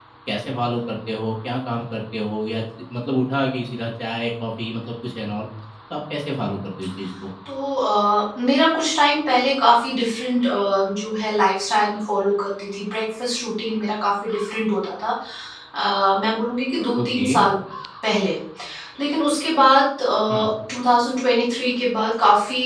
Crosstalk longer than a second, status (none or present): none